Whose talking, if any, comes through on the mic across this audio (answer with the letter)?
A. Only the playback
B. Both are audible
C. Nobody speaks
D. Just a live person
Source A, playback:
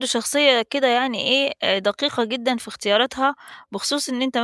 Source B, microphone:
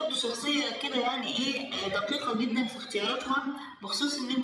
A